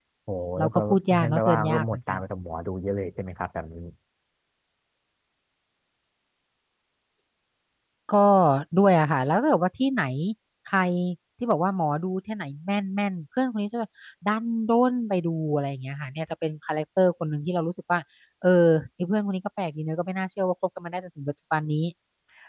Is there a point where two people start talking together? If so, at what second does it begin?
1 s

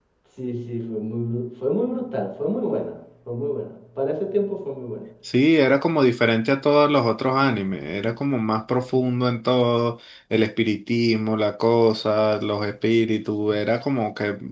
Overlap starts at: none

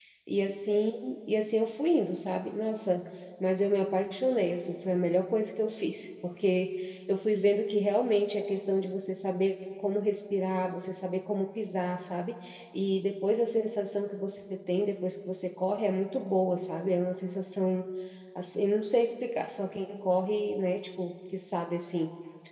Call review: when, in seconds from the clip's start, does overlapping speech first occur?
none

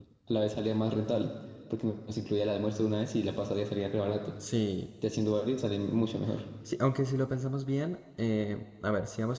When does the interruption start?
none

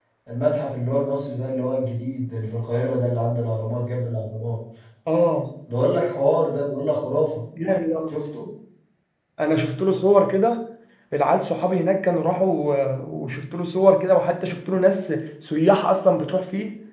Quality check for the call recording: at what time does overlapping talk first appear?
none

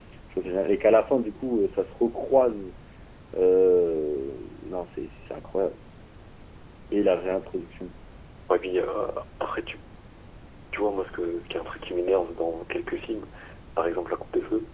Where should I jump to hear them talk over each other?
none

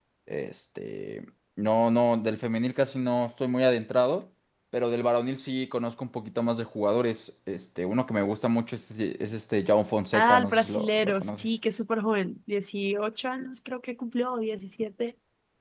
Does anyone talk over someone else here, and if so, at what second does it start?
10 s

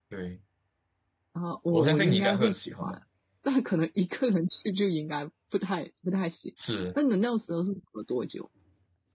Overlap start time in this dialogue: 2 s

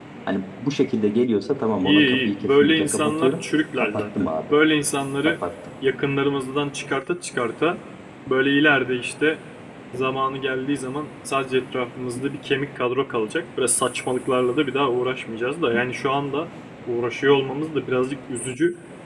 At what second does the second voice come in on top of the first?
2 s

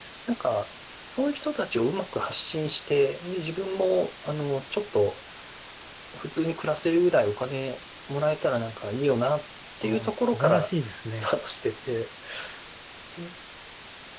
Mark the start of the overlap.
10 s

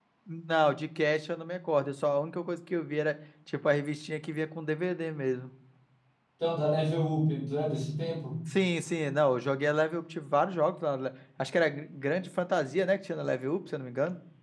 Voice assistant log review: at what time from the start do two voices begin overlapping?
none

